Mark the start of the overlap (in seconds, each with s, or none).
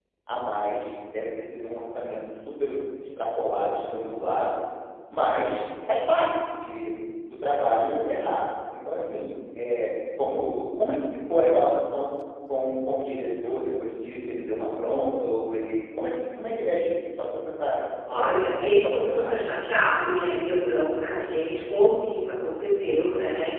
18.1 s